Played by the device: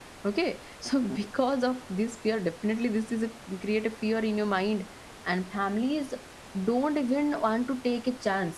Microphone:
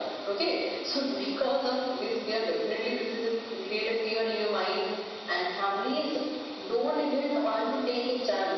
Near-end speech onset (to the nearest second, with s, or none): none